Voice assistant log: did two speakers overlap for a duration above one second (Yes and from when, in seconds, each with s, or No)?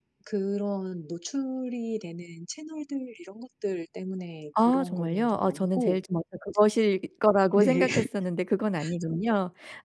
Yes, from 4.5 s